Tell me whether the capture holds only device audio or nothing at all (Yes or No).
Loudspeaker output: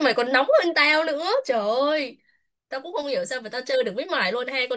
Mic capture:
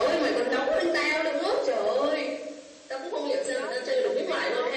No